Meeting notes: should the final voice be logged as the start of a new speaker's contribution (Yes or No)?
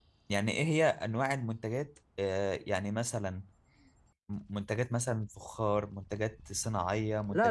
Yes